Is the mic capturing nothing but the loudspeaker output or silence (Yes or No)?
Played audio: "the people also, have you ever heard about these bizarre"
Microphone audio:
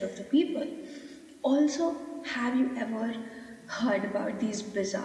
Yes